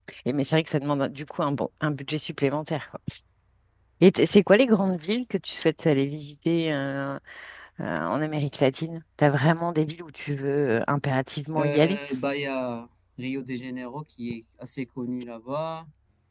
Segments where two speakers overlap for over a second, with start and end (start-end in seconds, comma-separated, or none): none